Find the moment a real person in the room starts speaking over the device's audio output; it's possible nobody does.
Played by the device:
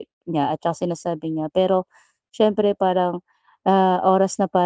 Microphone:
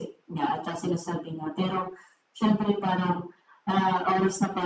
none

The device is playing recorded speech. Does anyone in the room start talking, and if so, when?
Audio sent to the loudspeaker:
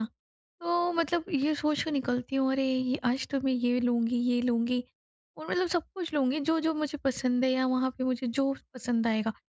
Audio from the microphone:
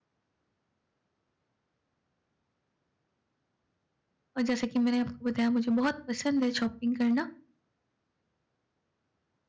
4 s

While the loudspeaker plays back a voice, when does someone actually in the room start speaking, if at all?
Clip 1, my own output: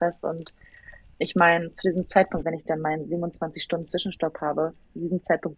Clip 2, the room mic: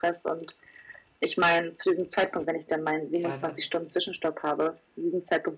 3 s

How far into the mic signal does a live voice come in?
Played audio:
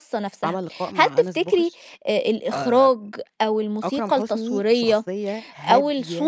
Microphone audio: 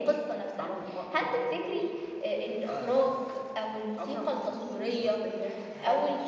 none

